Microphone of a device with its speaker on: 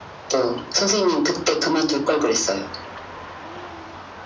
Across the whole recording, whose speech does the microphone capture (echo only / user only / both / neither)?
echo only